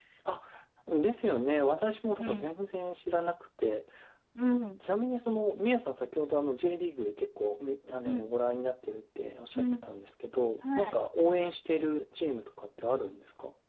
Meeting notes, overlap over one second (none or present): none